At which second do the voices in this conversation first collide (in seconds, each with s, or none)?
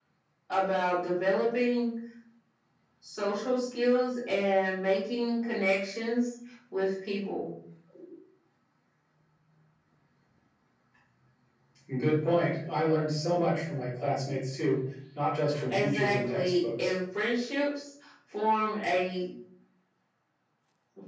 15.7 s